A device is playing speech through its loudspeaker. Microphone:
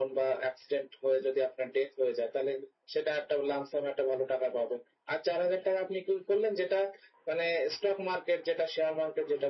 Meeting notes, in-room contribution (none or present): none